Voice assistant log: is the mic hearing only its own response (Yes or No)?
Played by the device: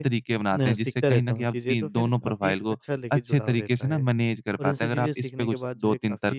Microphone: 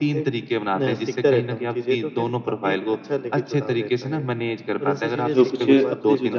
No